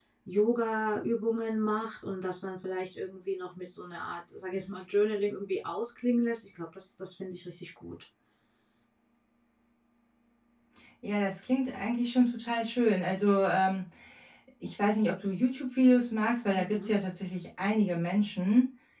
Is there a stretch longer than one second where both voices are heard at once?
No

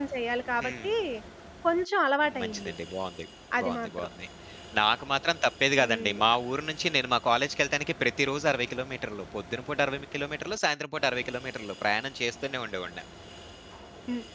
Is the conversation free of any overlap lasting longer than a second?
Yes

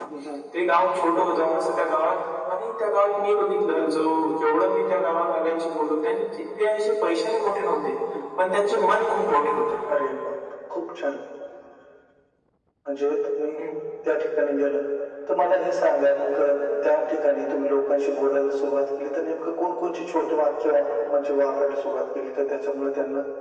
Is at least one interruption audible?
No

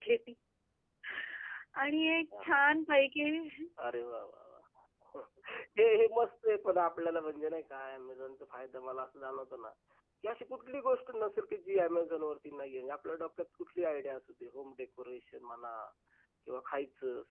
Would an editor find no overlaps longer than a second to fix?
Yes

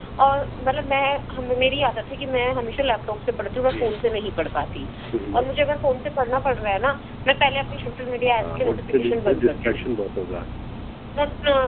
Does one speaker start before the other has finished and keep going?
Yes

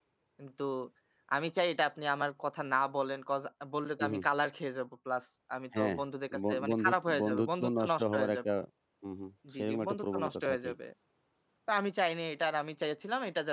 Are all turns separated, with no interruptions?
No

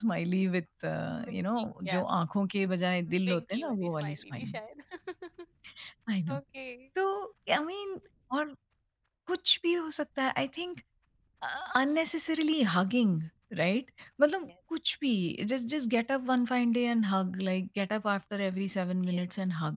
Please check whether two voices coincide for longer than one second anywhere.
Yes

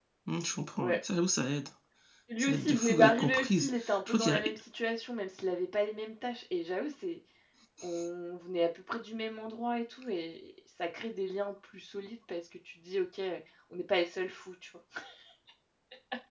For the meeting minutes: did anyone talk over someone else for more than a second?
Yes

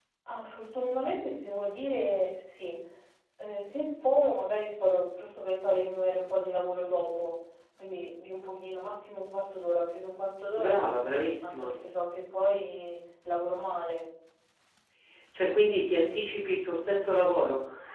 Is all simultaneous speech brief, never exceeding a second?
Yes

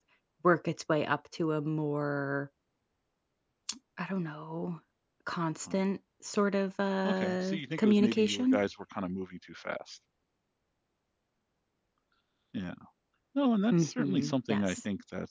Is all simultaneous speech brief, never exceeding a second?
No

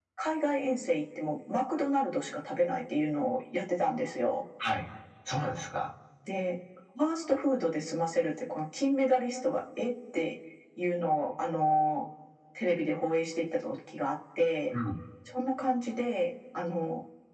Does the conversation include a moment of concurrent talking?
No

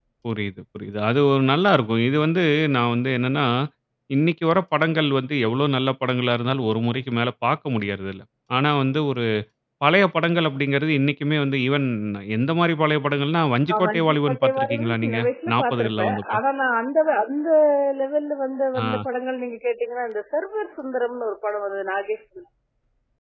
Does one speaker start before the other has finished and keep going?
Yes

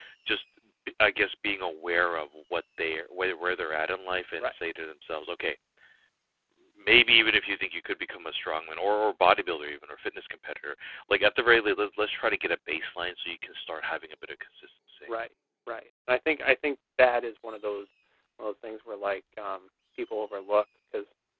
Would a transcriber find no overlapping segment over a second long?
Yes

